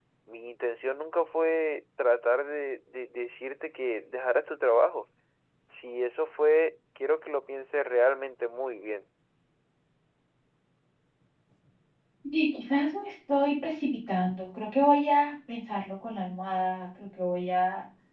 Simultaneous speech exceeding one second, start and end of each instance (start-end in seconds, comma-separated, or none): none